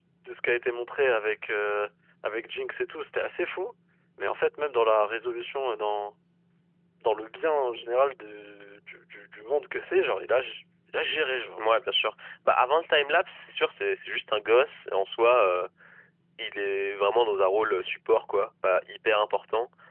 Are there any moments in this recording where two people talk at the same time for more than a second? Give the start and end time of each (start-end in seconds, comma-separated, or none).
none